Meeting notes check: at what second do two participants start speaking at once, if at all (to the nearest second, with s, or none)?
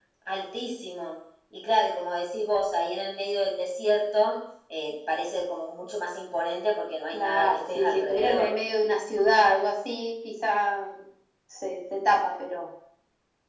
7 s